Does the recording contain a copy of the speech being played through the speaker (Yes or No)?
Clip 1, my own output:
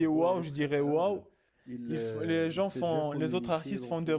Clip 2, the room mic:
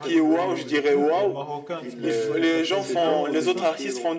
Yes